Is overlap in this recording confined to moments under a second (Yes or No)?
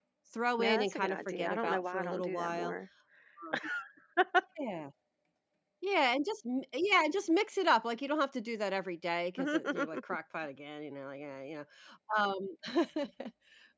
No